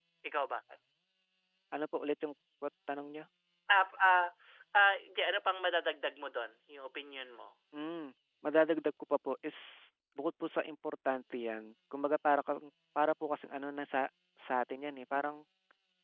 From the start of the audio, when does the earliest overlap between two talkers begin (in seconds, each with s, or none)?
none